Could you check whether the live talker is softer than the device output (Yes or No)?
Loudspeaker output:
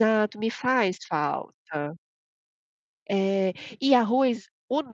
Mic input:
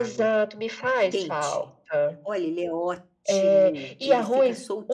Yes